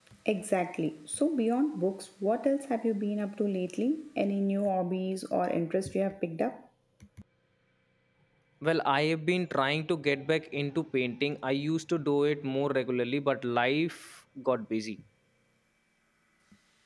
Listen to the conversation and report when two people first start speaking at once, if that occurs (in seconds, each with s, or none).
none